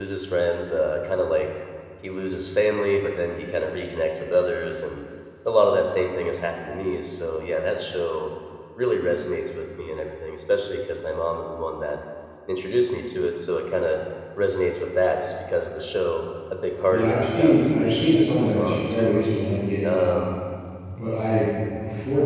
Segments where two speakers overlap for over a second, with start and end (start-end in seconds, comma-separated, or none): 16.9-19.2